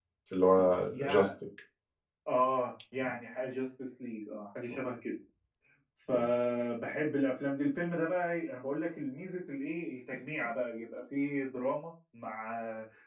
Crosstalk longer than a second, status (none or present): none